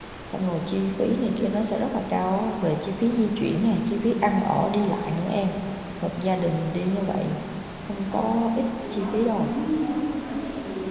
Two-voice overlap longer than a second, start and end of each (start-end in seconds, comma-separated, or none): 7.9-9.5